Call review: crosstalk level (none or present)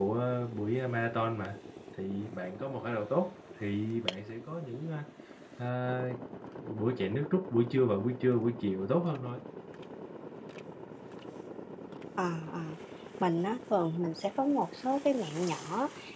none